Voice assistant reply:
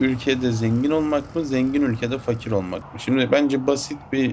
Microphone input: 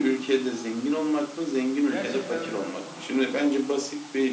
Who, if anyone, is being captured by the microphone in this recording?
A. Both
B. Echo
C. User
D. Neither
A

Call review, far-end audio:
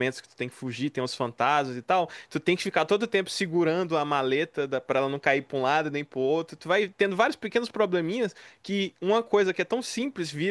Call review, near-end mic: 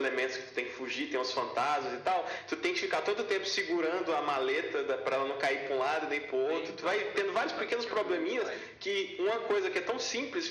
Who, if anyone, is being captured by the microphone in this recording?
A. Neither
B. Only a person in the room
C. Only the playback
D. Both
D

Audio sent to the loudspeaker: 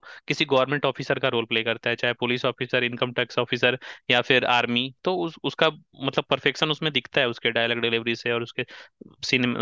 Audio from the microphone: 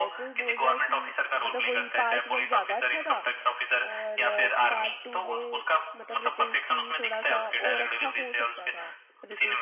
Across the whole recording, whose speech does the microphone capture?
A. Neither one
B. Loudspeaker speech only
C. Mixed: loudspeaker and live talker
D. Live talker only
C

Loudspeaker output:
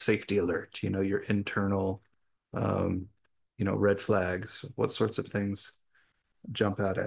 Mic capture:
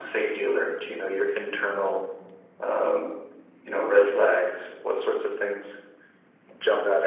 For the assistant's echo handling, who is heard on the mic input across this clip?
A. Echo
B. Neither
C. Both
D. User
A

